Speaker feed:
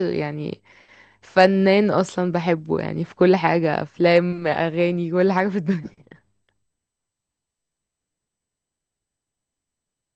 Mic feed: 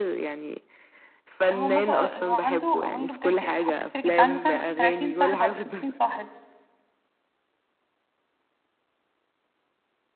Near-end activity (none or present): present